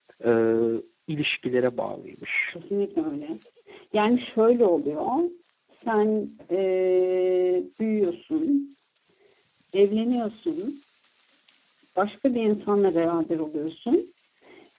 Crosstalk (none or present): none